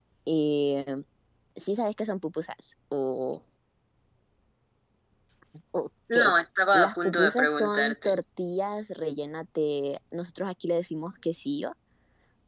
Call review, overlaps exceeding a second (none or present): present